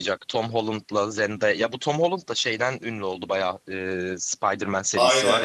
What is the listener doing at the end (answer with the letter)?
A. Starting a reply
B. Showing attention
A